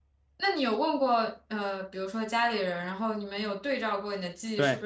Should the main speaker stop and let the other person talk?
Yes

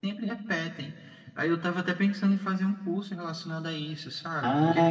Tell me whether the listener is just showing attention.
No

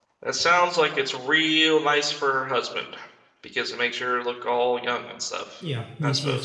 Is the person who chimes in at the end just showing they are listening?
No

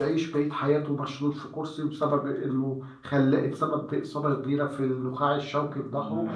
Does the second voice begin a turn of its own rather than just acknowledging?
Yes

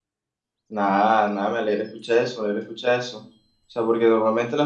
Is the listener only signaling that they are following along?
Yes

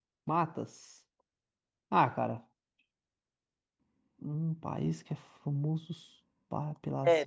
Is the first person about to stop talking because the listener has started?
Yes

